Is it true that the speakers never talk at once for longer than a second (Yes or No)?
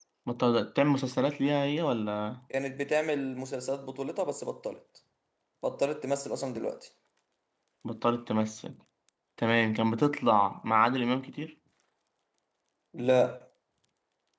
Yes